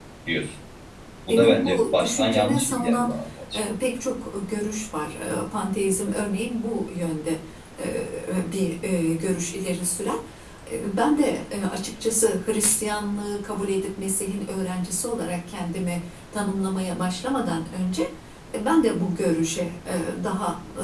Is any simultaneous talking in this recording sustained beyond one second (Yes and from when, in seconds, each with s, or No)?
Yes, from 1.3 s